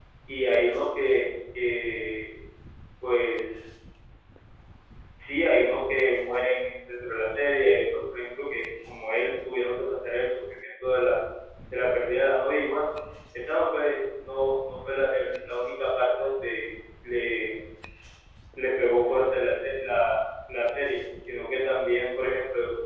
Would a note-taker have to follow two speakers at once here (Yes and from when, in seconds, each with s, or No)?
No